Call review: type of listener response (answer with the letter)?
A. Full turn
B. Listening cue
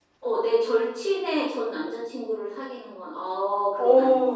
A